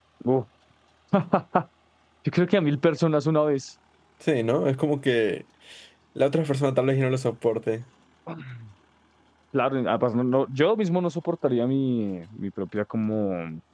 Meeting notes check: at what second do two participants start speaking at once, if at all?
none

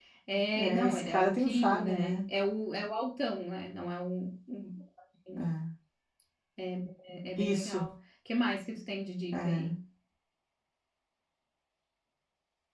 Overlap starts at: 0.6 s

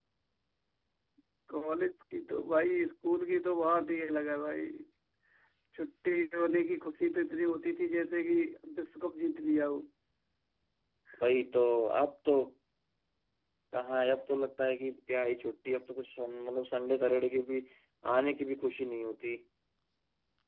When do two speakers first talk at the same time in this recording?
none

